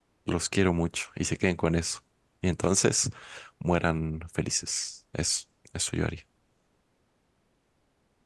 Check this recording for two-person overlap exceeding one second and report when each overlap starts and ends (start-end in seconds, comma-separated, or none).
none